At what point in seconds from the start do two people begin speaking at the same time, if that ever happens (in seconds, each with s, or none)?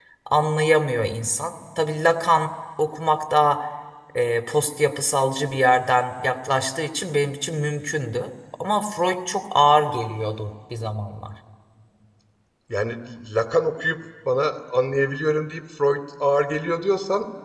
none